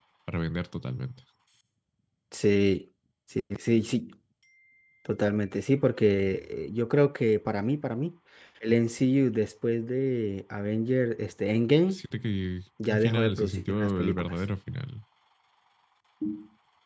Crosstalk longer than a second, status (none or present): present